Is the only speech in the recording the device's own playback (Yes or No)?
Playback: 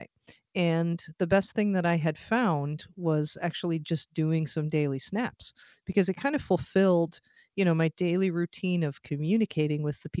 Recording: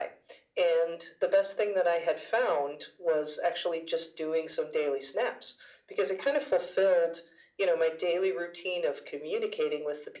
Yes